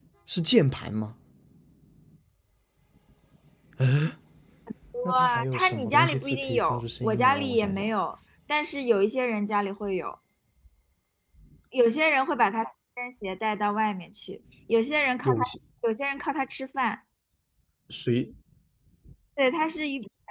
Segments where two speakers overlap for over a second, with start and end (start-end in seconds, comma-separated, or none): 5.1-7.9